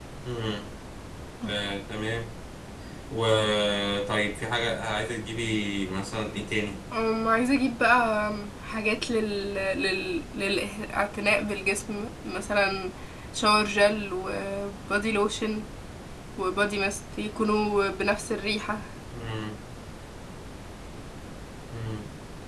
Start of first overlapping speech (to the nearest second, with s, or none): none